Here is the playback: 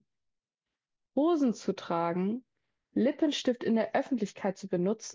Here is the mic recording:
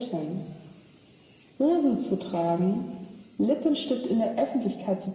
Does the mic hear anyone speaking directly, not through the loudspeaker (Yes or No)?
No